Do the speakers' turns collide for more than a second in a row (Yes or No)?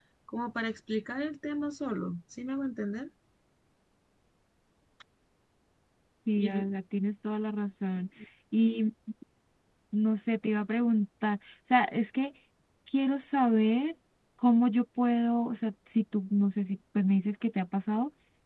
No